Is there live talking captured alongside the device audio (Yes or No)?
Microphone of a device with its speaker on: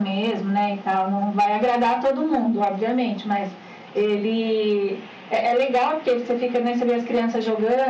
No